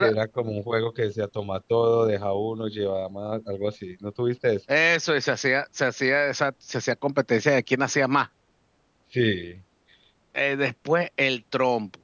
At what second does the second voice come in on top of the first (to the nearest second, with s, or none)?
none